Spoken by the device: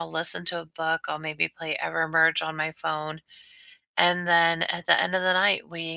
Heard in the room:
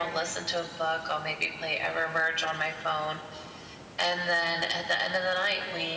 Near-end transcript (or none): none